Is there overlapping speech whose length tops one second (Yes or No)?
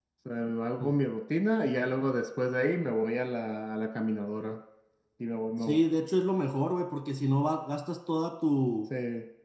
No